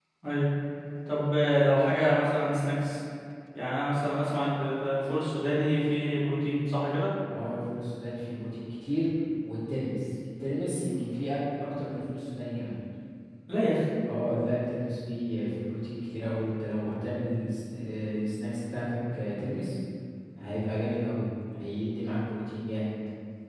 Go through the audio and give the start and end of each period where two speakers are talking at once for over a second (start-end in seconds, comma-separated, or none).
none